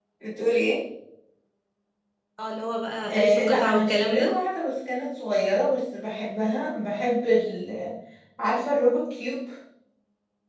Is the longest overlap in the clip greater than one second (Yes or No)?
Yes